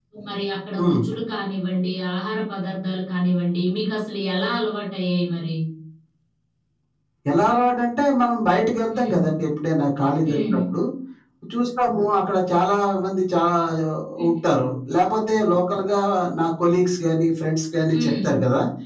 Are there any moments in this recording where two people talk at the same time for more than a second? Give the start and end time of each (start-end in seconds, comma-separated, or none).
none